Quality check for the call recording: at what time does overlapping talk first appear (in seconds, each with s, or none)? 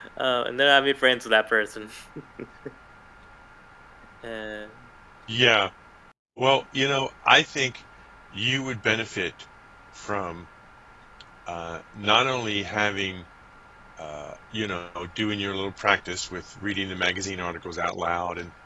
none